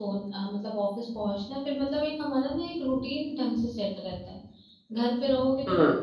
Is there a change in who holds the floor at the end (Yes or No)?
No